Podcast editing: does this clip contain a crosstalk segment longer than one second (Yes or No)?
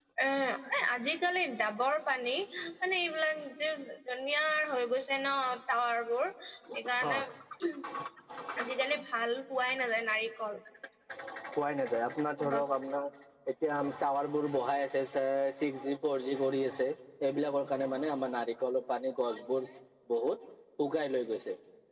No